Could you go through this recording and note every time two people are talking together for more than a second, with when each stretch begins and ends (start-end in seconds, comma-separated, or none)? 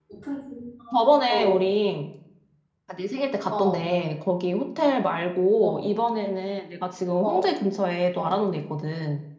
none